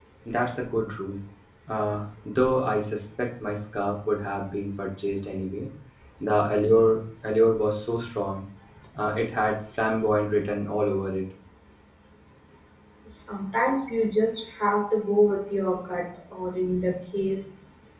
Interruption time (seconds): none

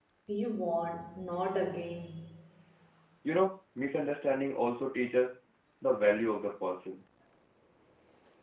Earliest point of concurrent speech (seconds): none

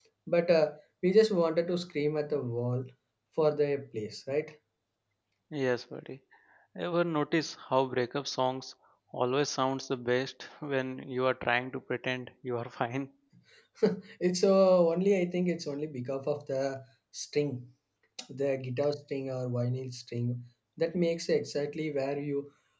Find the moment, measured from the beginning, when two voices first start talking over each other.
none

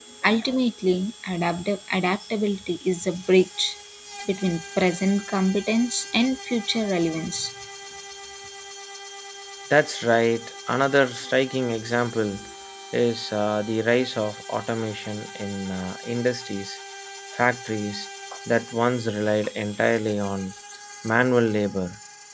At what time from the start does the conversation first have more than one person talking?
none

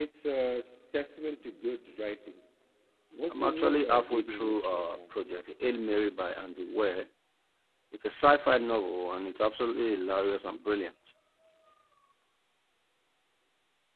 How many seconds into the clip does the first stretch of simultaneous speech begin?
3 s

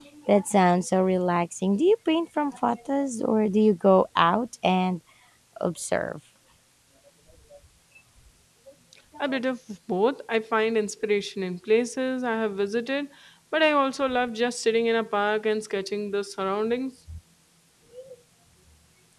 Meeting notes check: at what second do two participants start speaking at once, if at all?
none

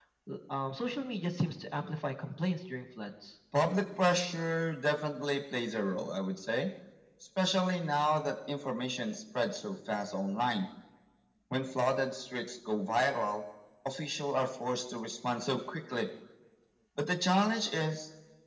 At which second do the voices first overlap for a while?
none

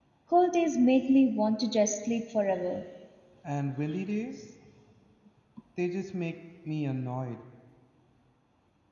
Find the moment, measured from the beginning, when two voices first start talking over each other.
none

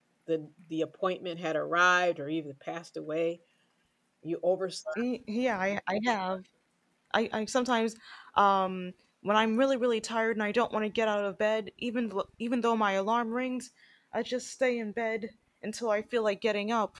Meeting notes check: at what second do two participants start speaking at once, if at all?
none

